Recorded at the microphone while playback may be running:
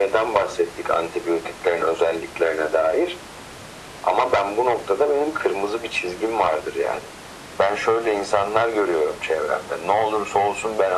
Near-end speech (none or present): none